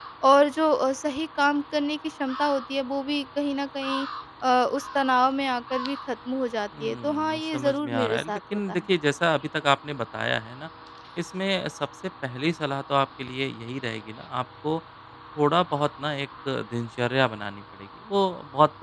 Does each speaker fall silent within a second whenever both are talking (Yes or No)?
No